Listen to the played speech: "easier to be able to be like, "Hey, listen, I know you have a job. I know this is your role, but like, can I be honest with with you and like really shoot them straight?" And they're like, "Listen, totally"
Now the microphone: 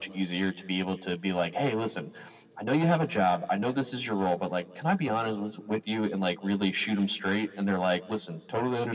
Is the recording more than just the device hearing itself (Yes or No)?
No